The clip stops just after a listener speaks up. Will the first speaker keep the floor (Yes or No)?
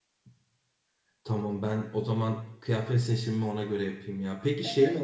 Yes